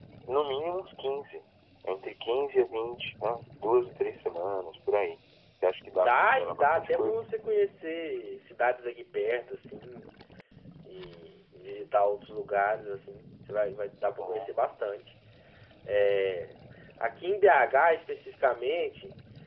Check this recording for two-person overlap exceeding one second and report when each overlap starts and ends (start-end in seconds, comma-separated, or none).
5.9-7.2